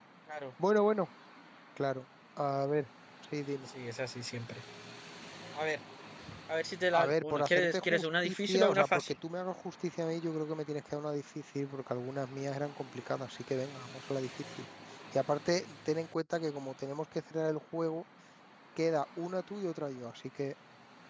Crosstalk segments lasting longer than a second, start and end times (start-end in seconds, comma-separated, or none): 6.9-9.2